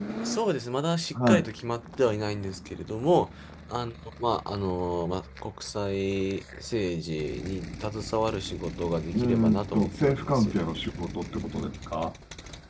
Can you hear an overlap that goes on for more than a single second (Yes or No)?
Yes